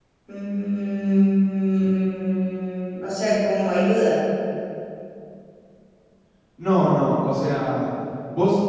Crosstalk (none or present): none